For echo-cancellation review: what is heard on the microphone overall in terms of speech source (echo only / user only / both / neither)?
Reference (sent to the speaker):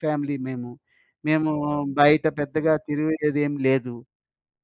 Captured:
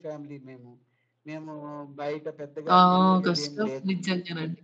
both